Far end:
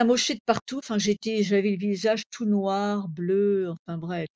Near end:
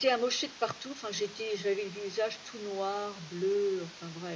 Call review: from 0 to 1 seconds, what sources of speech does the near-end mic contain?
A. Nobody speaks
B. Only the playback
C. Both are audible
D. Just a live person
B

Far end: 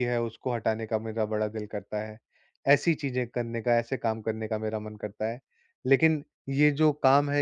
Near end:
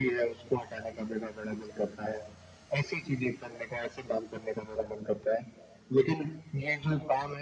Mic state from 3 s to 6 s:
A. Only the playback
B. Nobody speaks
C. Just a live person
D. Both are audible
A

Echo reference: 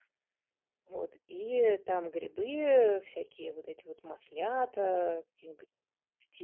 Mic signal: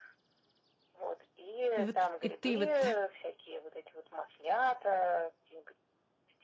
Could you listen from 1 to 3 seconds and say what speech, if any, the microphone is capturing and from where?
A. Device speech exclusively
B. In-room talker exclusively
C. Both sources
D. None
C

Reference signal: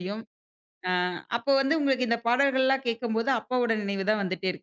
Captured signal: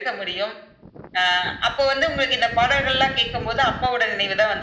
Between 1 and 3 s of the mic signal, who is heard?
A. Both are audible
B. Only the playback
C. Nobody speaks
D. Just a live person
B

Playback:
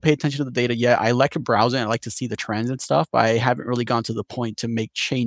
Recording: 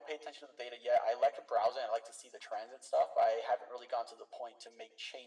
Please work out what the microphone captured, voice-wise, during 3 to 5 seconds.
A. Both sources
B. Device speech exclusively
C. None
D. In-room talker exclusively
B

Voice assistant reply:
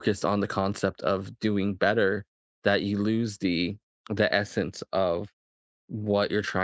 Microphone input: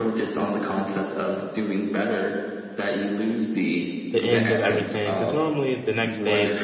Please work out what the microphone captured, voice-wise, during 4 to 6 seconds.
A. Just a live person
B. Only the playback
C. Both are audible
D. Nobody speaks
C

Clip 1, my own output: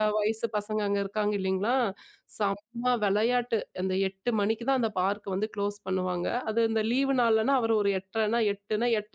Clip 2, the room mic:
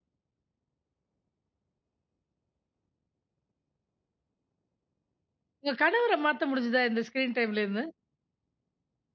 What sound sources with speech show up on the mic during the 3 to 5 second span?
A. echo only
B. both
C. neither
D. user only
C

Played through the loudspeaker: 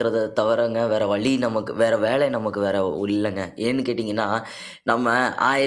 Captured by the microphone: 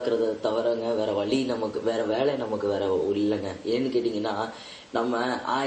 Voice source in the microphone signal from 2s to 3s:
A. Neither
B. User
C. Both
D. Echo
D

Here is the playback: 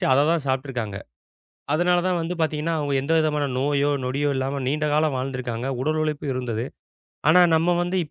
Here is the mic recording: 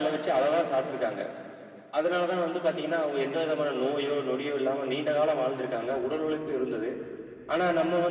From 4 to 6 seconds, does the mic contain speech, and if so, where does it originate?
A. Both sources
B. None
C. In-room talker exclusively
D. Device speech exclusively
D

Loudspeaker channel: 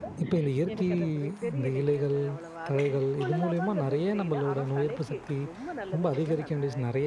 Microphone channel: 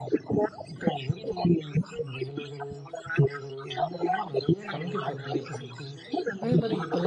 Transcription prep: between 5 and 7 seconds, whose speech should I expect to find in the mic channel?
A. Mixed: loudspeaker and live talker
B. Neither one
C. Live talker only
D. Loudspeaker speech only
A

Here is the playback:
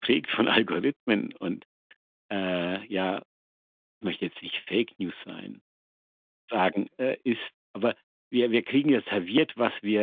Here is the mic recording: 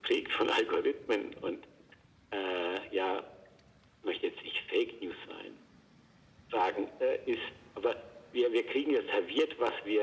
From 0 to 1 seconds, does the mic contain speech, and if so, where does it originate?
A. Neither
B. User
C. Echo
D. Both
C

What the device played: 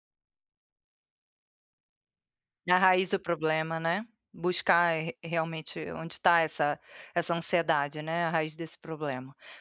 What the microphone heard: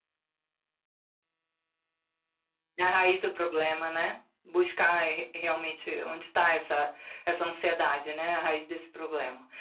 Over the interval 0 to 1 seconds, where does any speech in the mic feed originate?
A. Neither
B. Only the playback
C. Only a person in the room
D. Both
A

